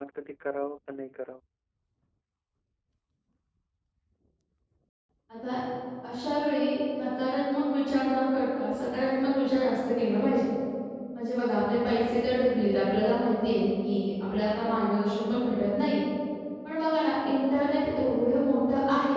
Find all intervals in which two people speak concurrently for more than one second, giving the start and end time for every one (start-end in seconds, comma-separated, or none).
none